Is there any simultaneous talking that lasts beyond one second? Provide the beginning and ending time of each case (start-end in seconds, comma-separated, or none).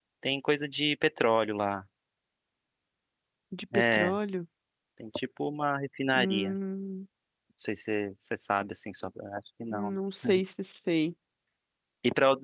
none